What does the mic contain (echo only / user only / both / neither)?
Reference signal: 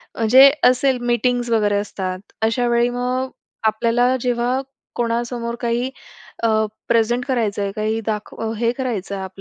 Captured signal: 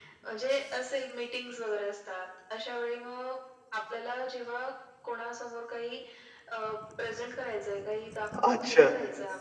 both